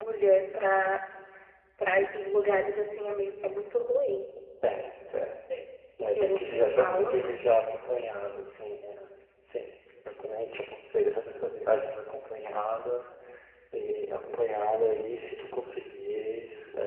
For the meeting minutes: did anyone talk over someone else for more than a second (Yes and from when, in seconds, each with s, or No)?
Yes, from 6.2 s